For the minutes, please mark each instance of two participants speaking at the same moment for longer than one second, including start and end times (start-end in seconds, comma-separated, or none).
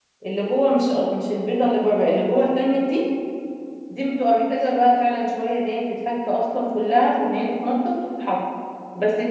none